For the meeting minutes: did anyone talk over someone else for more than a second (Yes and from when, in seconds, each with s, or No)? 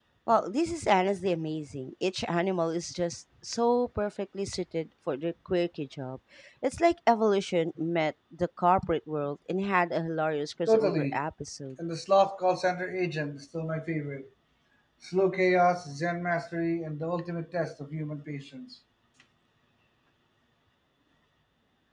No